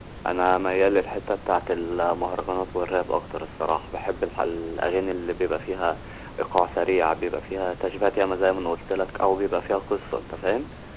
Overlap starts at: none

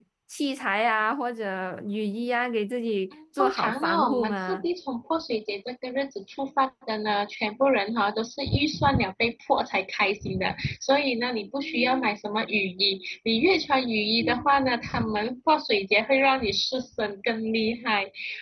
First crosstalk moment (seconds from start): 3.4 s

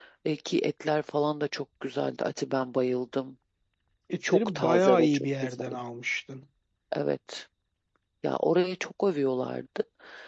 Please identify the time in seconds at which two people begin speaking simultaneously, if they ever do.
4.3 s

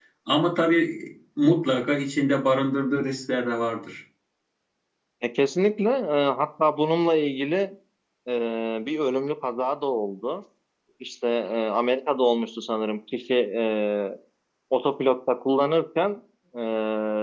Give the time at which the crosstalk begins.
none

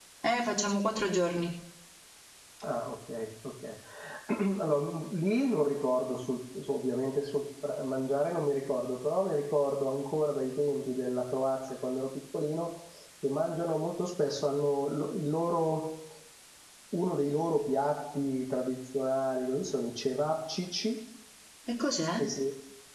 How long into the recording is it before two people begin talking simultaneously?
none

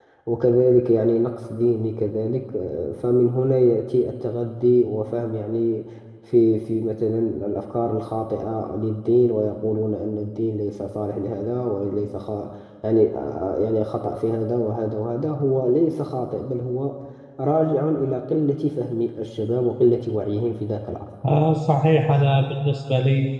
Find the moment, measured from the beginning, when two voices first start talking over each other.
none

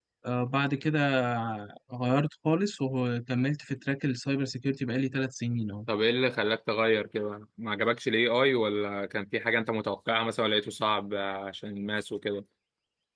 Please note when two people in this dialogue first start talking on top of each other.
none

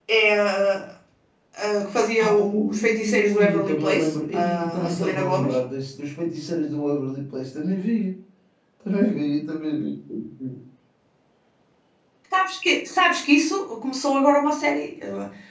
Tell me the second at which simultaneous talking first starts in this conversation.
2.2 s

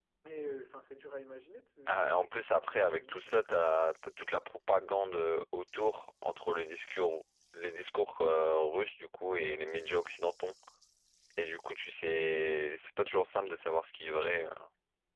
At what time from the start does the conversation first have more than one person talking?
1.9 s

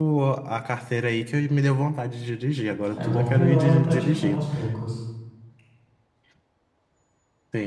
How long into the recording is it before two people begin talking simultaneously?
2.9 s

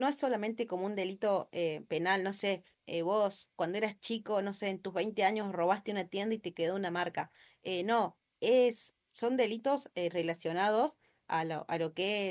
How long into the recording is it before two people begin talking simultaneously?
none

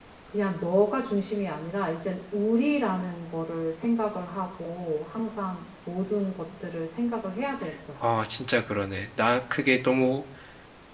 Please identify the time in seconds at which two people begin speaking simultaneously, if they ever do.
none

